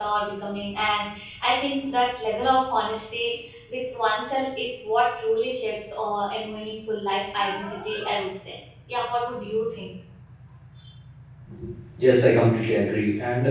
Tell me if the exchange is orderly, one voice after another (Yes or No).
Yes